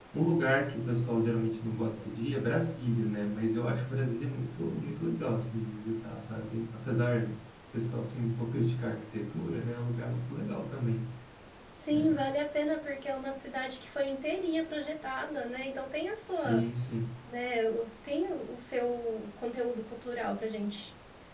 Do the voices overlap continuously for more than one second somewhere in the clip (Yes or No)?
No